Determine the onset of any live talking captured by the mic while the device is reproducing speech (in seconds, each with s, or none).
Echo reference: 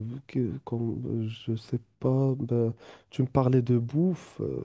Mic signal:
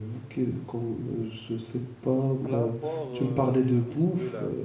2.4 s